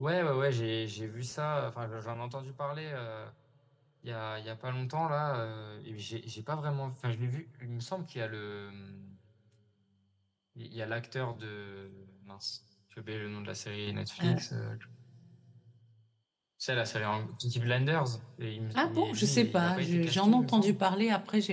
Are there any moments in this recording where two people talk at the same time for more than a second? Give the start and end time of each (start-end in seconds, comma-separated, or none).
18.7-20.8